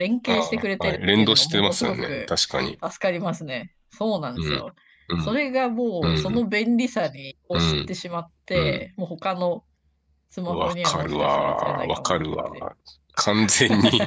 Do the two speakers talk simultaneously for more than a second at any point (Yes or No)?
Yes